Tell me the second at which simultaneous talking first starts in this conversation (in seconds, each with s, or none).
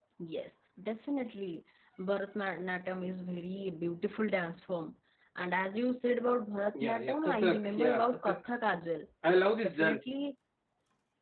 6.8 s